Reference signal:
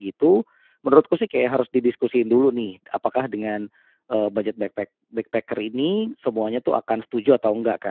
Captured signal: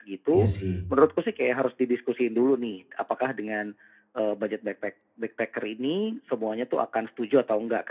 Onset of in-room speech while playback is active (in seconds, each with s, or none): 0.3 s